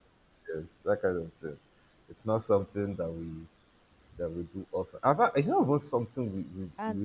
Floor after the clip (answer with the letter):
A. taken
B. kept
A